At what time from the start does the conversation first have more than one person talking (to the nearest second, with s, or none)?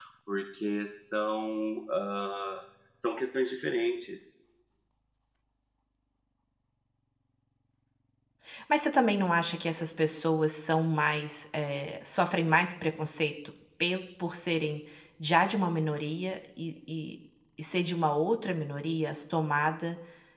none